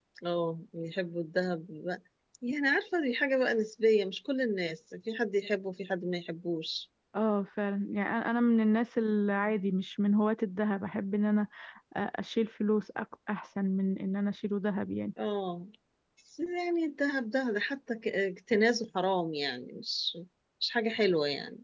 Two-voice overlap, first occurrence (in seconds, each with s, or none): none